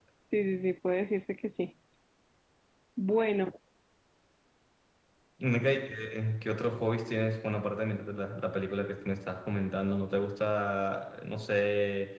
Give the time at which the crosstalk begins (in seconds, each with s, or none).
none